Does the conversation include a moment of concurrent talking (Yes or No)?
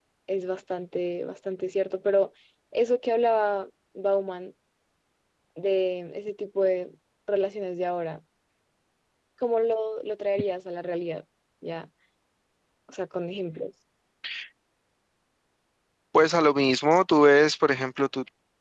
No